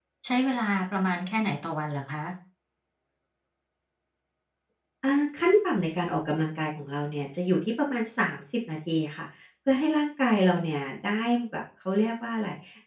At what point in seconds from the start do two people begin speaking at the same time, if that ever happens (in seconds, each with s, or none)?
none